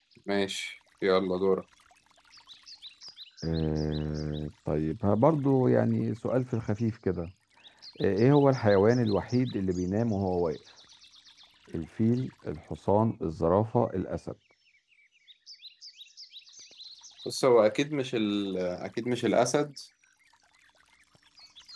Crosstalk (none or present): none